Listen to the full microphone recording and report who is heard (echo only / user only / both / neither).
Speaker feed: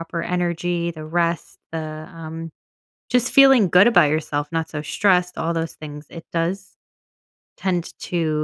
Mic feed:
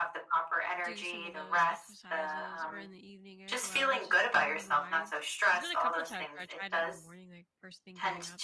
both